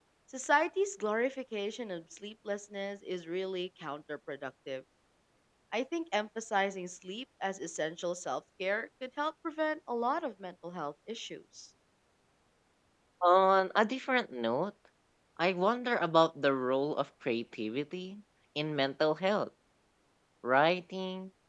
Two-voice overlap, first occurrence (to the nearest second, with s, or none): none